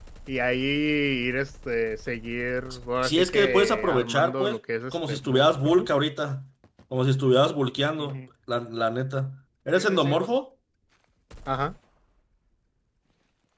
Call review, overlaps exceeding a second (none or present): present